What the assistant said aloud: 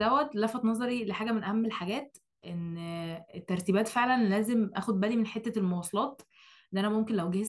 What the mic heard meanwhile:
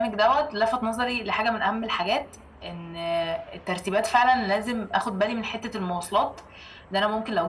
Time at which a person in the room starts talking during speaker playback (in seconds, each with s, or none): none